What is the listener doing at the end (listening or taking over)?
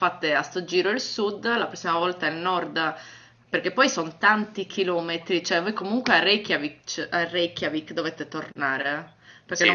listening